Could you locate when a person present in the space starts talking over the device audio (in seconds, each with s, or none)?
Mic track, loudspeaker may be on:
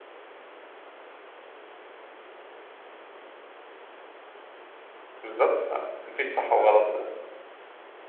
5.2 s